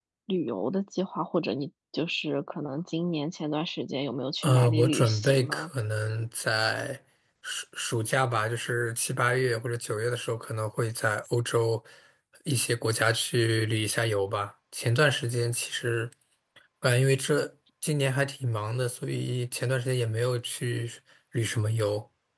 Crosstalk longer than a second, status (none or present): present